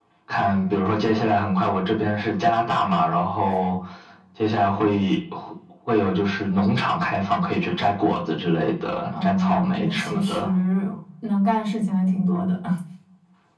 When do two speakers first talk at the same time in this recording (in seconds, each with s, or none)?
9.1 s